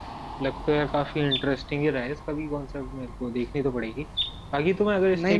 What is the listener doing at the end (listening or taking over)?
listening